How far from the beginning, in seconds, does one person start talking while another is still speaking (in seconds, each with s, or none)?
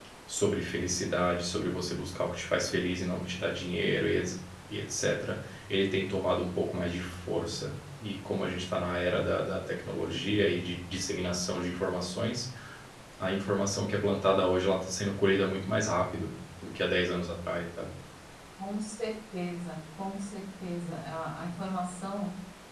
none